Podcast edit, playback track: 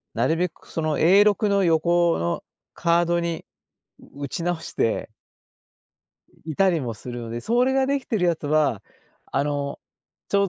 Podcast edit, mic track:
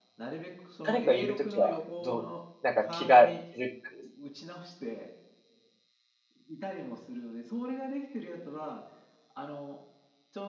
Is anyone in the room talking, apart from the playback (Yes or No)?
Yes